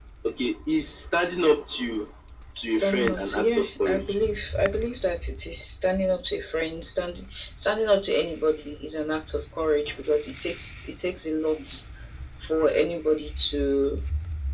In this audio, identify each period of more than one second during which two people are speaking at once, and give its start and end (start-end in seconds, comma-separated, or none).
2.7-4.2